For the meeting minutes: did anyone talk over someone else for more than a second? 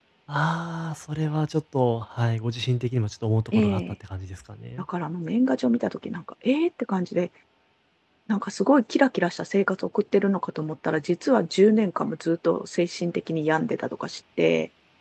No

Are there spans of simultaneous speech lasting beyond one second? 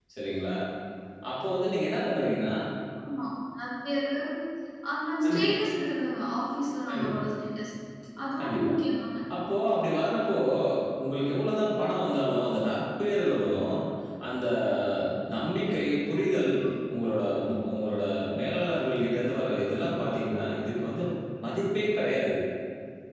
No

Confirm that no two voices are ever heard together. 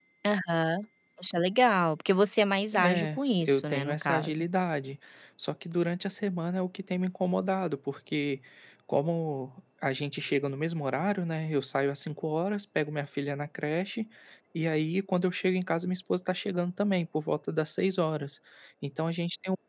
No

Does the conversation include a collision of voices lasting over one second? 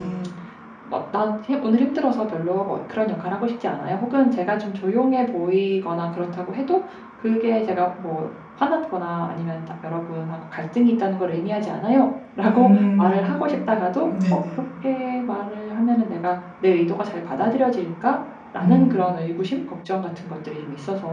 Yes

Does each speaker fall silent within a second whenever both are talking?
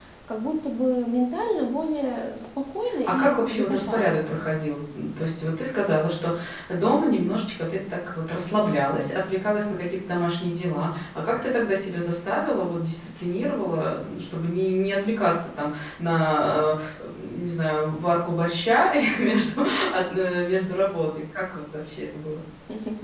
No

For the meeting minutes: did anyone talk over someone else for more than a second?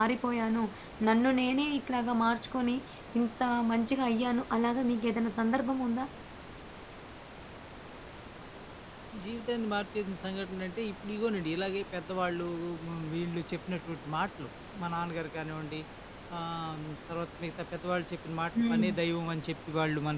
No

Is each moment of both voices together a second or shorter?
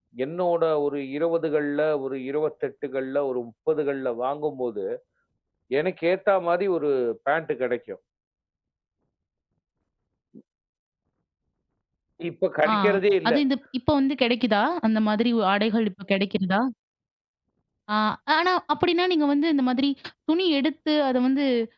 Yes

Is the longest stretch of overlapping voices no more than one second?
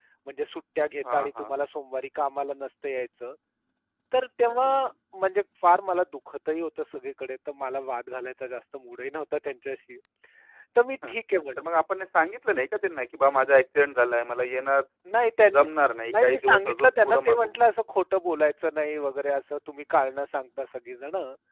No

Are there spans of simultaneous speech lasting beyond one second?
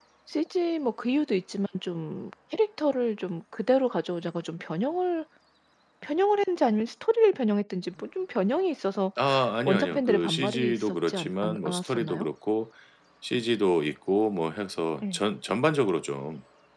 Yes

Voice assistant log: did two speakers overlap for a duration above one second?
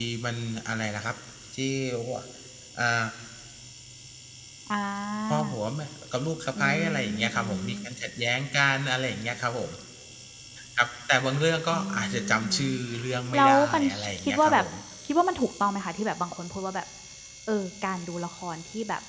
Yes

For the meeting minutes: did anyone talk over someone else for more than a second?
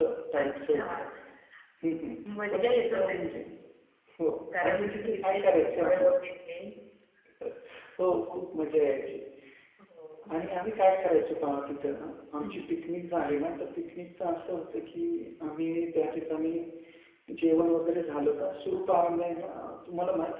Yes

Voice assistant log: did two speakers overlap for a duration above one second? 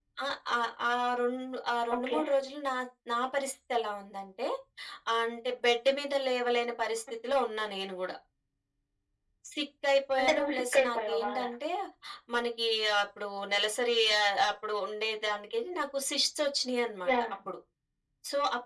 Yes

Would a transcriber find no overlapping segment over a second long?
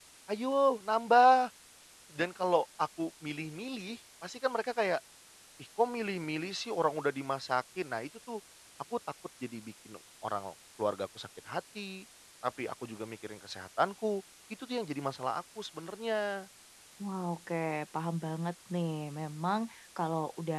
Yes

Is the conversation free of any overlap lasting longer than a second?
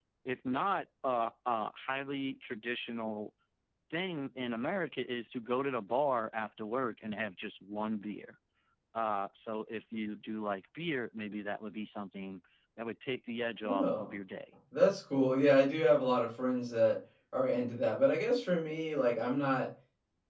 Yes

